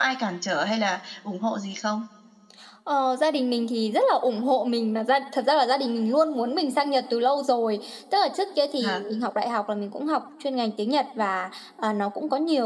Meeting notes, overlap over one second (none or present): none